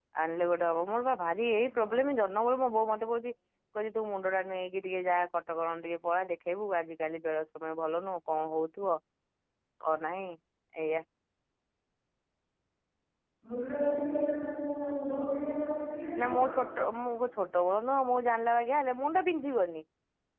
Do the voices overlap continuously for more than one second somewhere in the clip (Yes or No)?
No